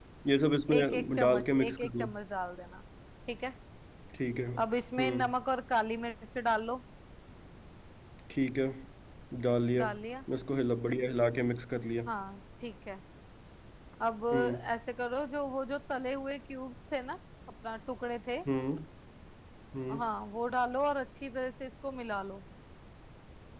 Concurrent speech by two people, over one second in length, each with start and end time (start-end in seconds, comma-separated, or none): 0.8-2.1